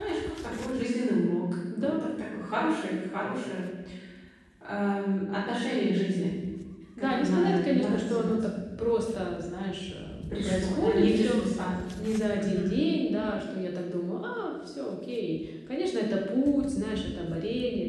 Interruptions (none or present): present